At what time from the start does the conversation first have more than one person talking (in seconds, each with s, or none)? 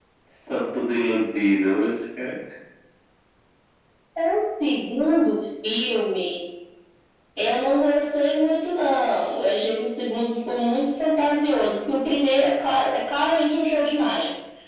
none